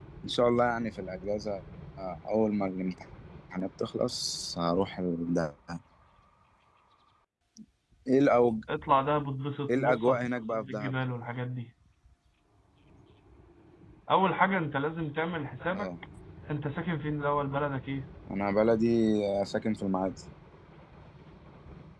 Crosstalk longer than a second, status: present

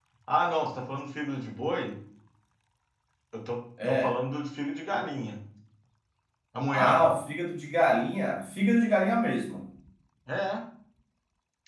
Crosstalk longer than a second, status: none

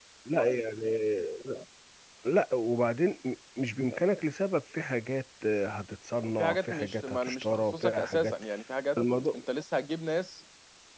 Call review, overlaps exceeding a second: present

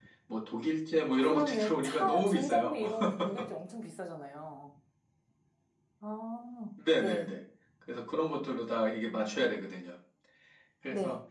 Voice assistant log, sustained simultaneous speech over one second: present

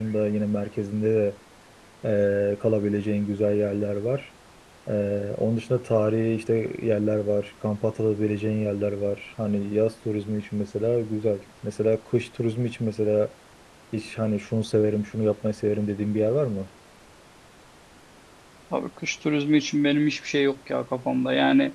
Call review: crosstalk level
none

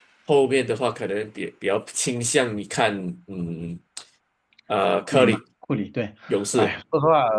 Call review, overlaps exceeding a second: none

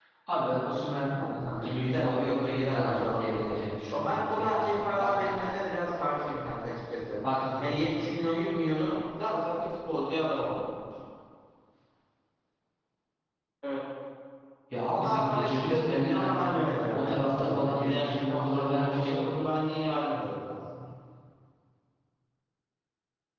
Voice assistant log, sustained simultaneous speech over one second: present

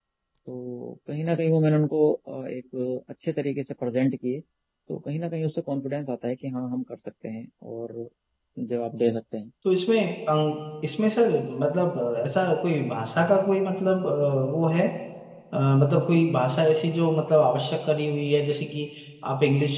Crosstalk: none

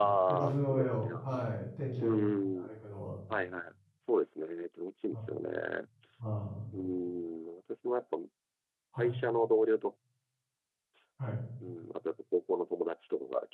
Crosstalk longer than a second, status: present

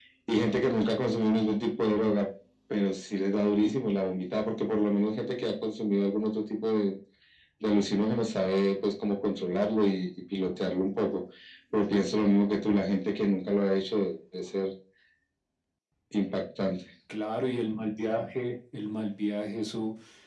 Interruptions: none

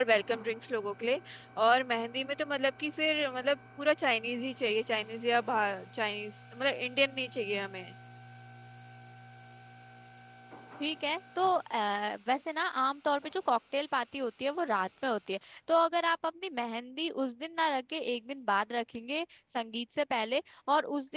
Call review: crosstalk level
none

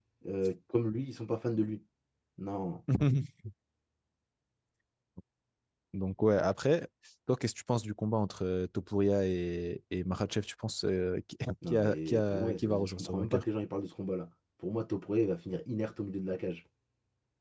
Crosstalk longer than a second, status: present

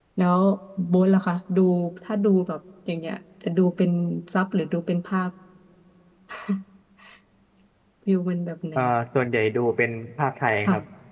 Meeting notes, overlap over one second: none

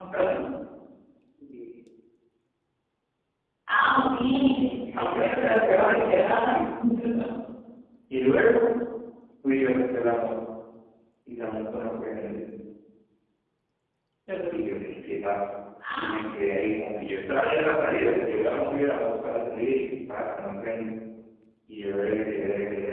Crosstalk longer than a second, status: present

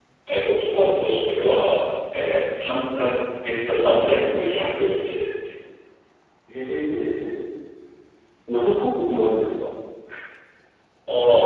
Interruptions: none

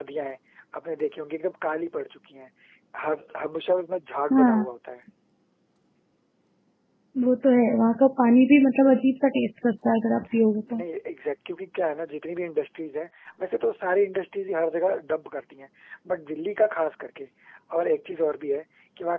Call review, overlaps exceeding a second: none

